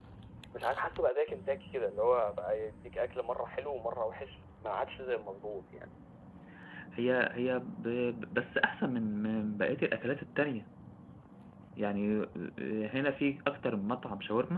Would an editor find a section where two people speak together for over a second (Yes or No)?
No